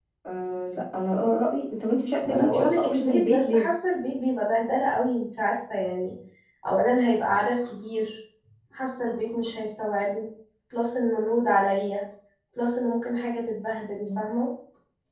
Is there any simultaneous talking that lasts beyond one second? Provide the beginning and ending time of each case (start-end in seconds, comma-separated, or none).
2.2-3.6